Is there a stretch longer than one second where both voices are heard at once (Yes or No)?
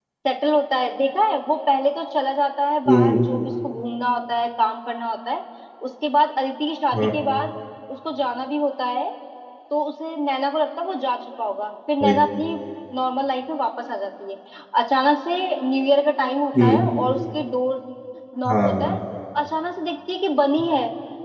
No